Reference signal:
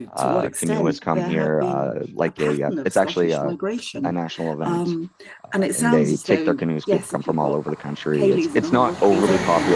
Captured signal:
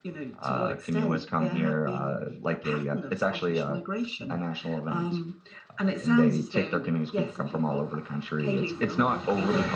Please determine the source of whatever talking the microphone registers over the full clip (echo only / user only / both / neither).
echo only